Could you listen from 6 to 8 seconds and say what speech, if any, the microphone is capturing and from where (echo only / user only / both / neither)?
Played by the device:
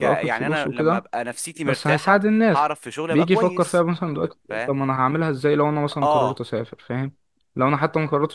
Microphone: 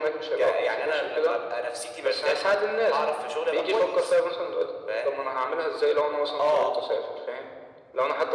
echo only